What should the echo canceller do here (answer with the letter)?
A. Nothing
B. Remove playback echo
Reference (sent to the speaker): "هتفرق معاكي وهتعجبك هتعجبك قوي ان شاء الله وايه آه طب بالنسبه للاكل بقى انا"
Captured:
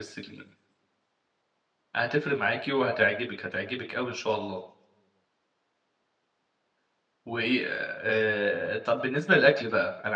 B